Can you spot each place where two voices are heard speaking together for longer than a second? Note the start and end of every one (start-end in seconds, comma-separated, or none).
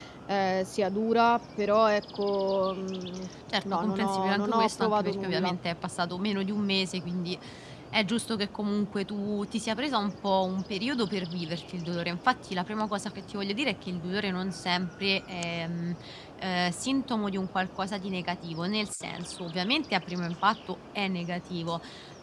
3.7-5.5